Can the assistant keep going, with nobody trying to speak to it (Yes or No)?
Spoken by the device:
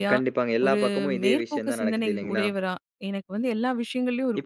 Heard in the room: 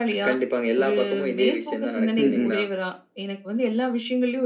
No